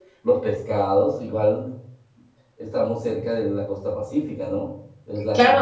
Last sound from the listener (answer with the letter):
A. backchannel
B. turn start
B